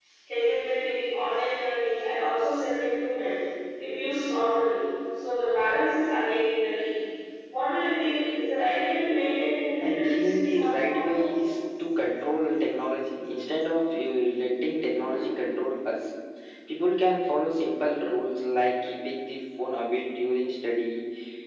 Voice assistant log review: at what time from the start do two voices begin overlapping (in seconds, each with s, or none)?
9.8 s